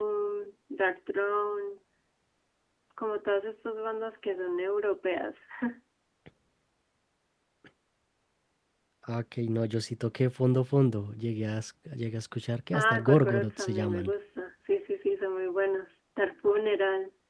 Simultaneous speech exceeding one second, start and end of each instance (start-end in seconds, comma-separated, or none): 12.7-14.1